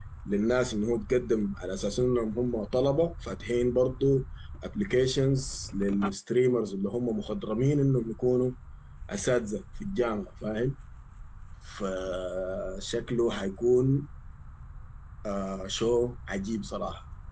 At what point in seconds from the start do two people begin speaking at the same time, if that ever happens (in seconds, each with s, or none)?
none